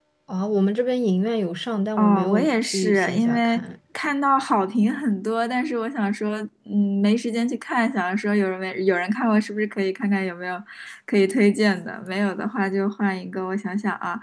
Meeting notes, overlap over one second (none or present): present